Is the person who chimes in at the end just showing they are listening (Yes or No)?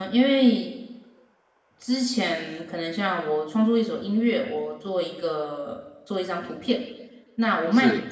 Yes